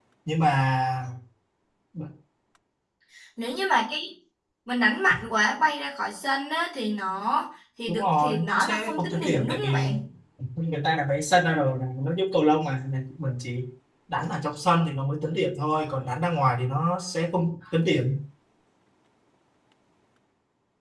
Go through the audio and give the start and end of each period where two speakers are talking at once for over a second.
7.9-10.0

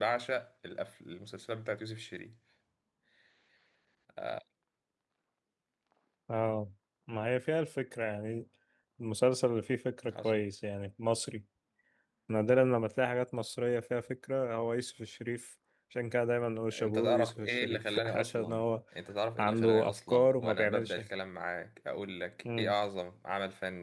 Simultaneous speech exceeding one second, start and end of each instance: 16.7-18.7, 19.4-21.0

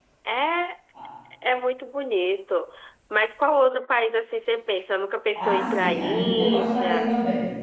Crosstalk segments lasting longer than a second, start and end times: 5.3-7.1

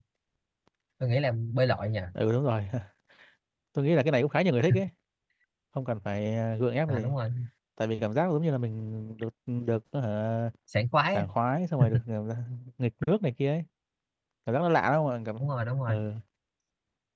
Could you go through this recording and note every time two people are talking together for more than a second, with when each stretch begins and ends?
none

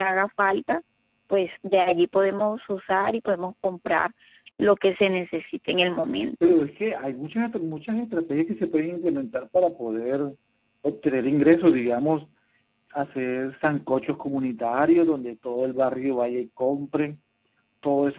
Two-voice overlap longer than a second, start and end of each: none

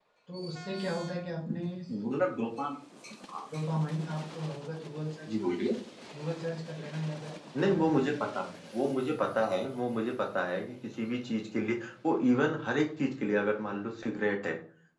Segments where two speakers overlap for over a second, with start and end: none

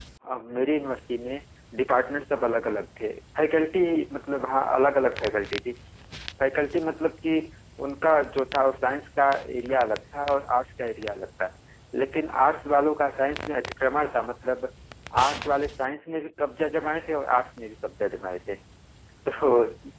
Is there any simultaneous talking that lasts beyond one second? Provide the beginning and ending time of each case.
none

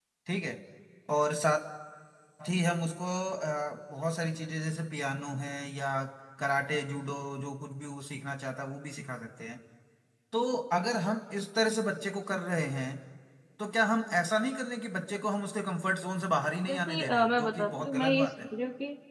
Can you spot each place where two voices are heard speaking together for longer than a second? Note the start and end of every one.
16.7-18.3

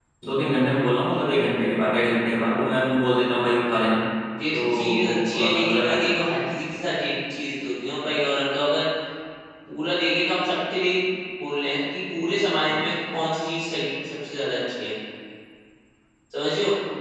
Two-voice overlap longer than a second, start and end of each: 4.5-5.9

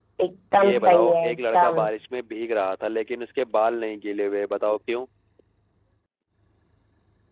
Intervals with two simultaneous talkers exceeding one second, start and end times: 0.6-1.8

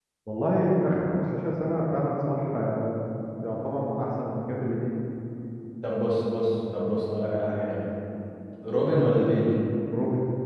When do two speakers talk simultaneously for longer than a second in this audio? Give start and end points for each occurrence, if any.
none

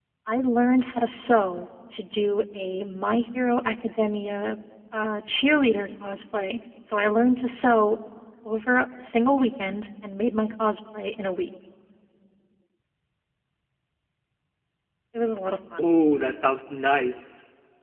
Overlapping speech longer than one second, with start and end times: none

